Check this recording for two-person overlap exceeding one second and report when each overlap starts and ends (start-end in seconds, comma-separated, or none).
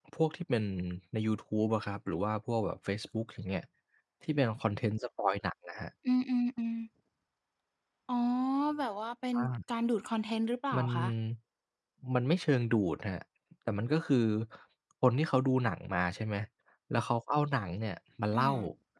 none